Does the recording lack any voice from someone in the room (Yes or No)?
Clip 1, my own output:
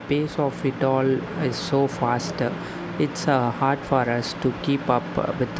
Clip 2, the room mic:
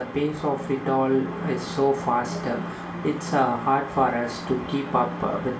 Yes